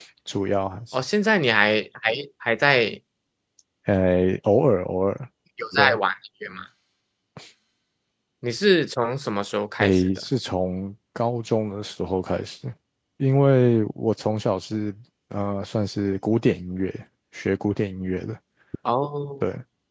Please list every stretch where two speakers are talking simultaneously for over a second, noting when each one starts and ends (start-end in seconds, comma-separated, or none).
none